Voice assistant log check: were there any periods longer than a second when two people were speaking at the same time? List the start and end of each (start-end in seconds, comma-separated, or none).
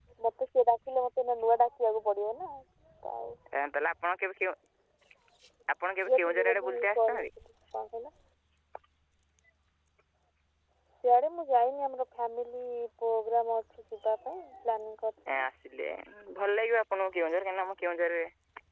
6.0-7.3